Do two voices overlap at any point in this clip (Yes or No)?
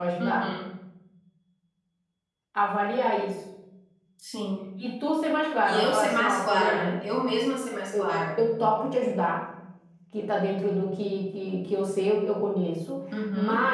Yes